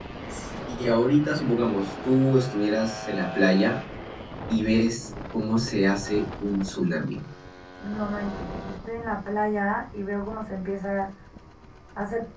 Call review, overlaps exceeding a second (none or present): none